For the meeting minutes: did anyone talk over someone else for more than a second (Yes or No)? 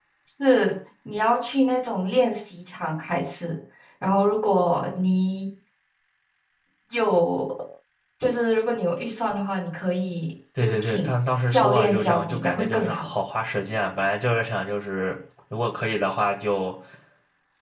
Yes